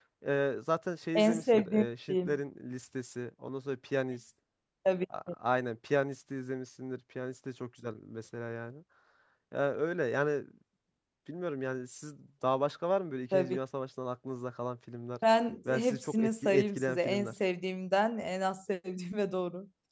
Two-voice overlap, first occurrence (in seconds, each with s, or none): 1.1 s